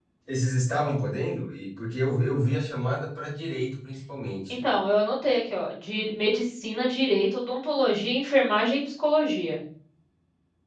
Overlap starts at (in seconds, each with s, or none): none